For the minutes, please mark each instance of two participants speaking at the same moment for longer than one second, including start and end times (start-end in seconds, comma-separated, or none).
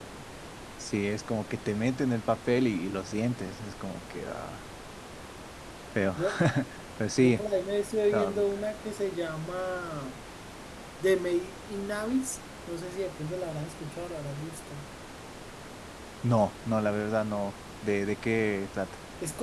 none